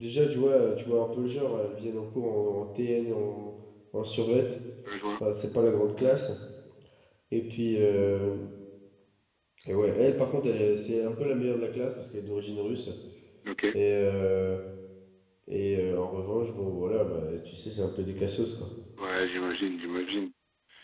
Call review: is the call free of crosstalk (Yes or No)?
Yes